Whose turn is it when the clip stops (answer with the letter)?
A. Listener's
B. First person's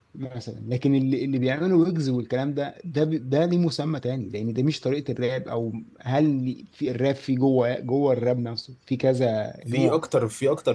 A